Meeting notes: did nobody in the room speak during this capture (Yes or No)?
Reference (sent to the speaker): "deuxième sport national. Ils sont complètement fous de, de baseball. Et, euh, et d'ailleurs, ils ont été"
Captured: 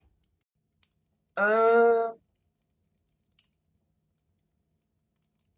No